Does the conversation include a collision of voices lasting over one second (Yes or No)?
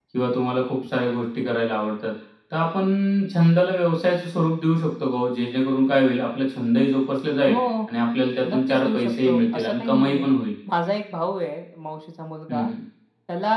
Yes